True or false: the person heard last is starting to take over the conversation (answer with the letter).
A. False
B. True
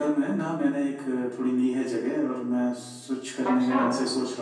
A